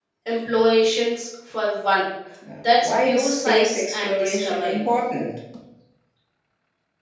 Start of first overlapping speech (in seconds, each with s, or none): 2.6 s